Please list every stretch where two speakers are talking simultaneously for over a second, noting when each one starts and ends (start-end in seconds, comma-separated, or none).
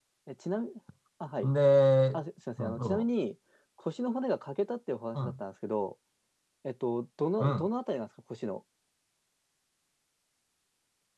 none